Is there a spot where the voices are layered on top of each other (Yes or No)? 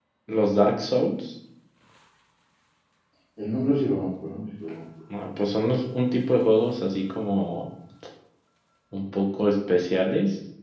No